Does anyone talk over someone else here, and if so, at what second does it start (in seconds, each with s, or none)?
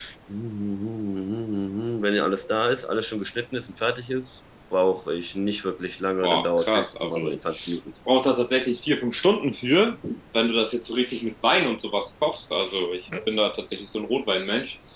6.2 s